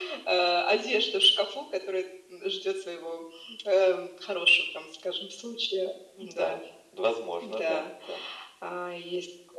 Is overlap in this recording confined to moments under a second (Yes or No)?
Yes